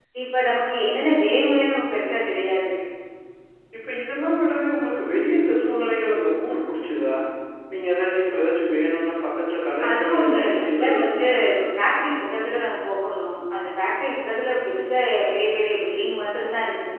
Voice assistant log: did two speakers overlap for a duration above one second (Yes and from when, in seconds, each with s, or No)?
Yes, from 9.8 s